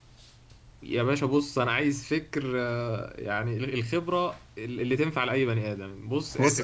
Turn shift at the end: No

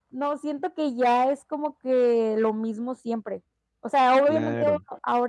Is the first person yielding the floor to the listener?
No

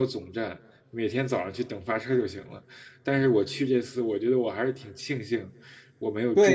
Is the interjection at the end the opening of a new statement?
Yes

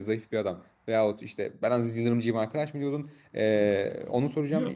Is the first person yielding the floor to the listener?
Yes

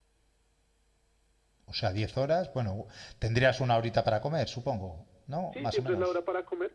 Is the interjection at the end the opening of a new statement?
Yes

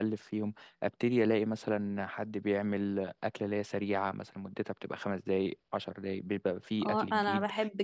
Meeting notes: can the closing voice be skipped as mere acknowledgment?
No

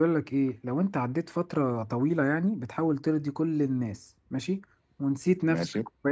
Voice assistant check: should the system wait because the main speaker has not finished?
Yes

